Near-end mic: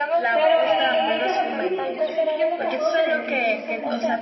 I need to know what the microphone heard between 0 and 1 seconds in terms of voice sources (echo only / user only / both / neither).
both